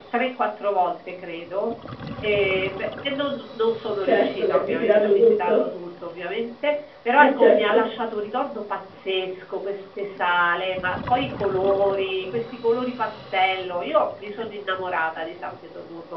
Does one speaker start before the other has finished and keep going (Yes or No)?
Yes